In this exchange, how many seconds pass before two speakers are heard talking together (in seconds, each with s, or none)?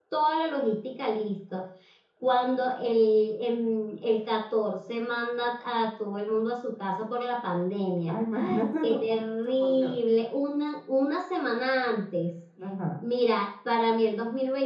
8.0 s